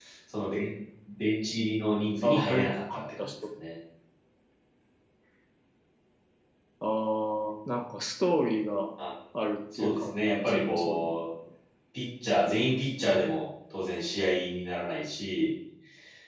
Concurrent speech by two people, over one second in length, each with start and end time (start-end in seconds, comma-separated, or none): 9.7-11.1